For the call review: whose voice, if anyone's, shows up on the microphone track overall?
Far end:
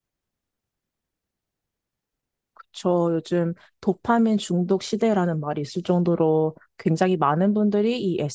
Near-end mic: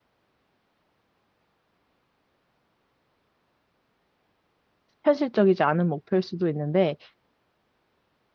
user only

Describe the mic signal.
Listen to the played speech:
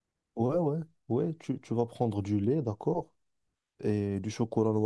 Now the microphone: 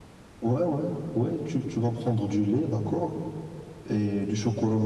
echo only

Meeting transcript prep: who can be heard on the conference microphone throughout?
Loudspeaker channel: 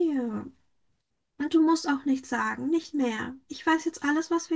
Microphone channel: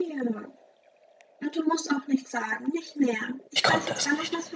both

